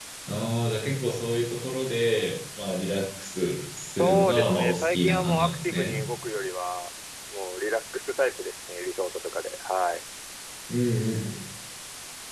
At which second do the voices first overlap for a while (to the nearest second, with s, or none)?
4 s